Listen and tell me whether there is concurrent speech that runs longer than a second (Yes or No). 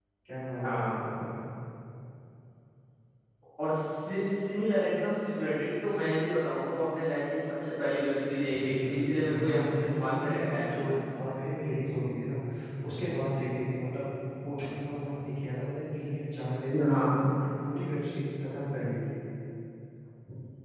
Yes